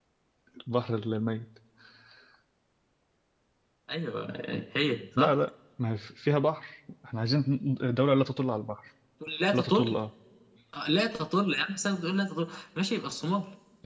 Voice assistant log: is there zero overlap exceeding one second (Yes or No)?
Yes